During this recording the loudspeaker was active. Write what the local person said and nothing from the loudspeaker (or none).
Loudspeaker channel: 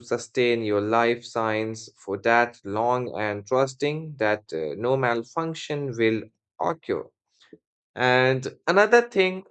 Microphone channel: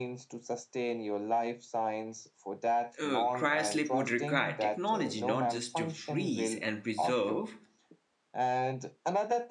uh, cryosleep would require technology not just to freeze and preserve,